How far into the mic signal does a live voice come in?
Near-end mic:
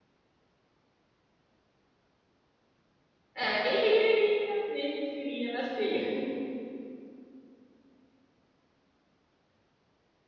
3.3 s

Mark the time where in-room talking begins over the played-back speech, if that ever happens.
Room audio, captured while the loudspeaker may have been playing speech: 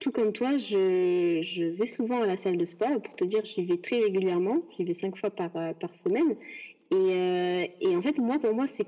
none

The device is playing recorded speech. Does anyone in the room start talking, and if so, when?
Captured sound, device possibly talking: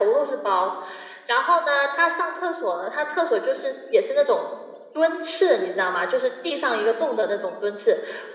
none

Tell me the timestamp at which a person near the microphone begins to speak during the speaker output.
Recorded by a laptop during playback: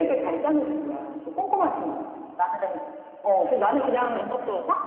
3.8 s

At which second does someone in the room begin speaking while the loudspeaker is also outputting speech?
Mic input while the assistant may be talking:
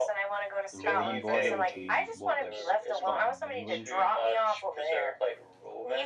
0.7 s

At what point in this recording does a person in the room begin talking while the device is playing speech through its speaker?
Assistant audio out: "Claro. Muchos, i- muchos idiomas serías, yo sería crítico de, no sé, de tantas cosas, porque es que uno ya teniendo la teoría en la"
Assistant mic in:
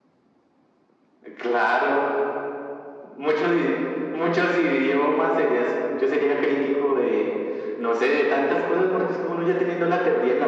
none

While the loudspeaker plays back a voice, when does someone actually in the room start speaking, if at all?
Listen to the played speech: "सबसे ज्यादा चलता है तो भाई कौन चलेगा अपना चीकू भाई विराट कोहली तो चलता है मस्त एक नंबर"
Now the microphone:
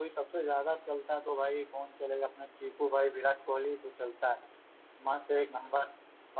none

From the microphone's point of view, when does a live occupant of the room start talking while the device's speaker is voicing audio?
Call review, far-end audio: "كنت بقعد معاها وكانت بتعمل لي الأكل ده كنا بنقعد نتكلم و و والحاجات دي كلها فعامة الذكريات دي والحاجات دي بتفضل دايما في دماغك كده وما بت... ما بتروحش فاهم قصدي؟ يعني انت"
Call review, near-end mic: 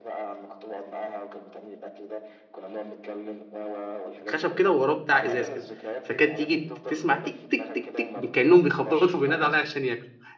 4.3 s

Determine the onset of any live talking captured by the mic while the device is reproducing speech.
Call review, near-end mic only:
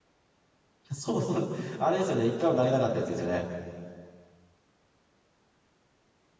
0.9 s

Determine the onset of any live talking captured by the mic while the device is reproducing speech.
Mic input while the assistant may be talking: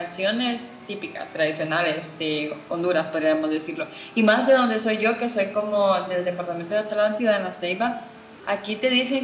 none

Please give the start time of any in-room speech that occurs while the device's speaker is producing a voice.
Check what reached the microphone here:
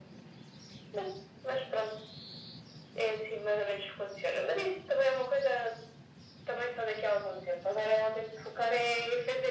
none

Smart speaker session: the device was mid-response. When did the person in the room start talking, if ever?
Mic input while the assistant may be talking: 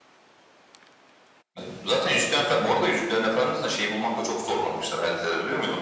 none

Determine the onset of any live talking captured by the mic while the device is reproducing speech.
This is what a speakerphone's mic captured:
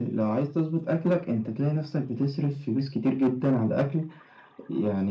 none

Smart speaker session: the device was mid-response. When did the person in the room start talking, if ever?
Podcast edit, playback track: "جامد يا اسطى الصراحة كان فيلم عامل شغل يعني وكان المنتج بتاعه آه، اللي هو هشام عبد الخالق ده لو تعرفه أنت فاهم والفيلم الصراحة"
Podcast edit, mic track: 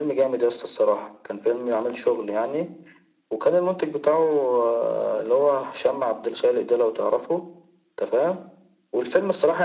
none

